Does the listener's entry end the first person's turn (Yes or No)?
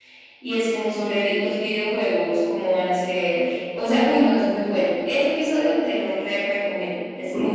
Yes